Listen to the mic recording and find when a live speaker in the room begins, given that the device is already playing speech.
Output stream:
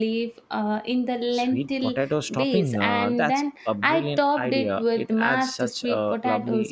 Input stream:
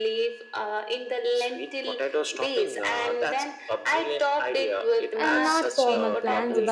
5 s

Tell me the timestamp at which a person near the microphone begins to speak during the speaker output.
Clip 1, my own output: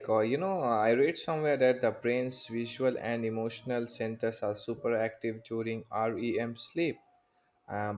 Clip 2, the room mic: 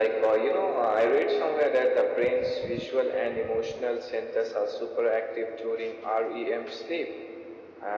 none

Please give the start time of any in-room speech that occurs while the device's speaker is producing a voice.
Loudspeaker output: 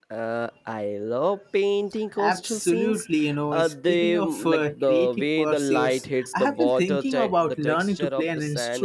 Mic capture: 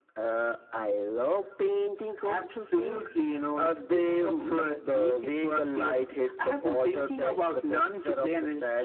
none

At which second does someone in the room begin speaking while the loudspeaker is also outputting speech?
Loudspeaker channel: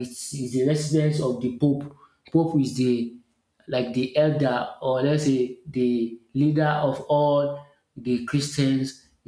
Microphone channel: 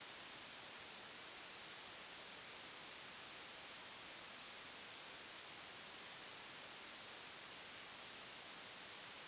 none

